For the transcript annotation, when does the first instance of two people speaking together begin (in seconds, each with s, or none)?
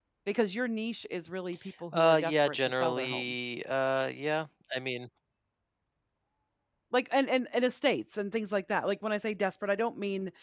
1.9 s